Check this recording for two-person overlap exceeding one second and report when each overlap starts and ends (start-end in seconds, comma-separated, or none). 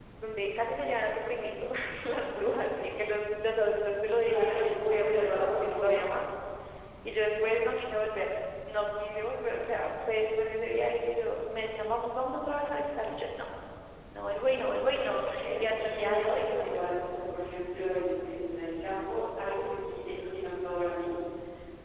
4.2-5.9, 15.0-16.9